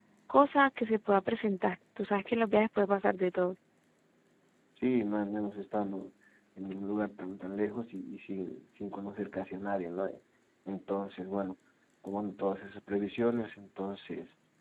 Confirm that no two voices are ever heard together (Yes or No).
Yes